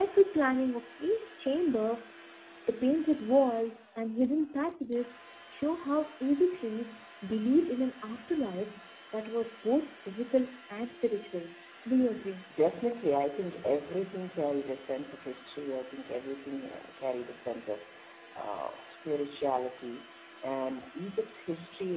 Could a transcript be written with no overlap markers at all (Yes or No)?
Yes